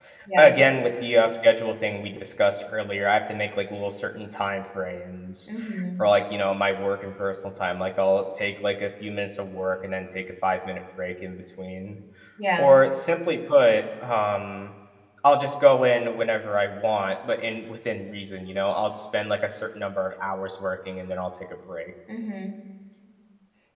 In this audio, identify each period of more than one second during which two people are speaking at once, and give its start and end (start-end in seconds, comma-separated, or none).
none